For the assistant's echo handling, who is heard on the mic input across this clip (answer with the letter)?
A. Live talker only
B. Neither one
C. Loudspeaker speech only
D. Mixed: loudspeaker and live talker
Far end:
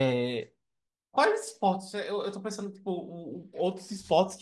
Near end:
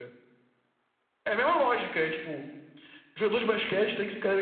A